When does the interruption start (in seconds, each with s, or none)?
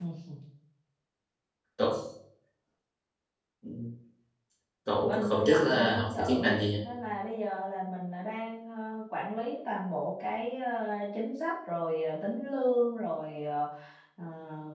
5.0 s